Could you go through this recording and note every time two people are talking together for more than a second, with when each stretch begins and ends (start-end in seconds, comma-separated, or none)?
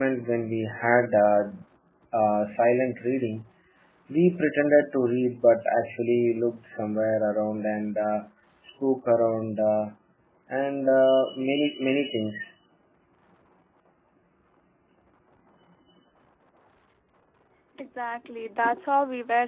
none